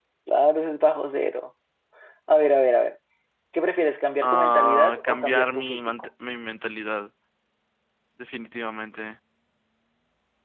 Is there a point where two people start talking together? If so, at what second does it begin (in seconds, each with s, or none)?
4.2 s